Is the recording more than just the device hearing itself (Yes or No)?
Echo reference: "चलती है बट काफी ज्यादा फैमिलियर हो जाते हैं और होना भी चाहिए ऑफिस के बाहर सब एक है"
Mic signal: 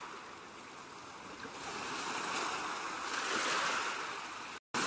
No